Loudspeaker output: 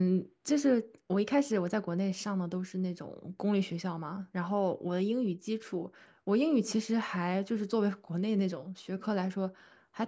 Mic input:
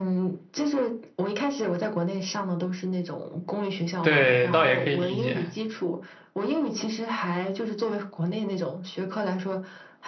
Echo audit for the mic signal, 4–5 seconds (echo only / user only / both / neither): both